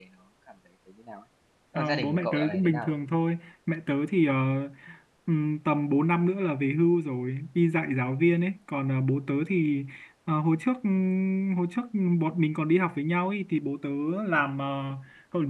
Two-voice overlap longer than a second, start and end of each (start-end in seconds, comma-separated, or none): 1.8-3.0